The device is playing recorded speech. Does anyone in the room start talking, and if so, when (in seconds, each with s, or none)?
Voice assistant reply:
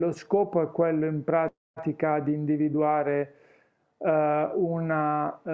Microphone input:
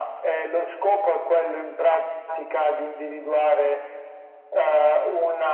none